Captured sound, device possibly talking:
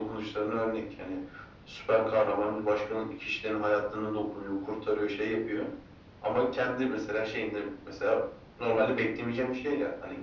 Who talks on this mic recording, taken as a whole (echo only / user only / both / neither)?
echo only